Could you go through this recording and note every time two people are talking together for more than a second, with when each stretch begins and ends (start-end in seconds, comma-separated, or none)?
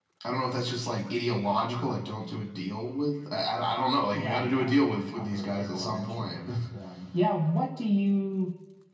4.1-6.4